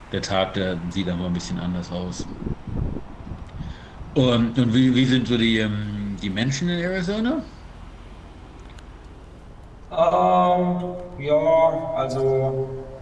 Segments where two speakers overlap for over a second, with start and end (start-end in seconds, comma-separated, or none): none